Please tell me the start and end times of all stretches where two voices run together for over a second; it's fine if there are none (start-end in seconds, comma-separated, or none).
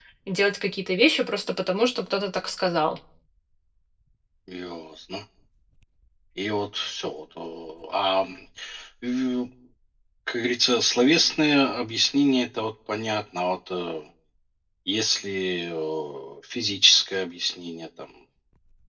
none